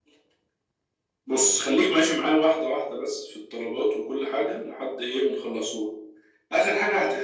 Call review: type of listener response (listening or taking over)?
listening